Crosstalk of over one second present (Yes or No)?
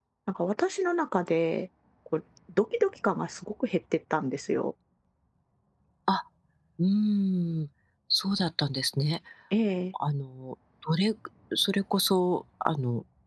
No